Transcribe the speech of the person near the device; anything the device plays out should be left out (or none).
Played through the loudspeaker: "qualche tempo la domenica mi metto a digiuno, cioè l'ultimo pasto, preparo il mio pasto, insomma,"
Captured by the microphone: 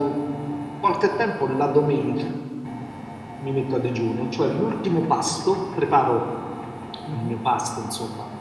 mhm.